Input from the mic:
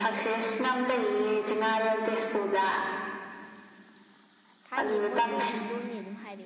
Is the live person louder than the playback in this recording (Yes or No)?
No